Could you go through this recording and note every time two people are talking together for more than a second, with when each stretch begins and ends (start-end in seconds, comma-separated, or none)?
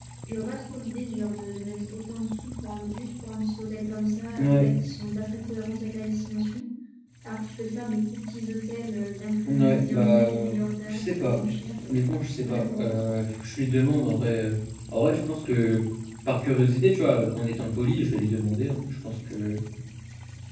9.5-11.4